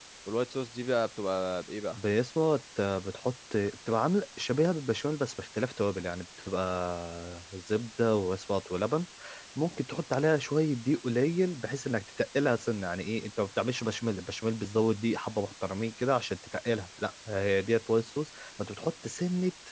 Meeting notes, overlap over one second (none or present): none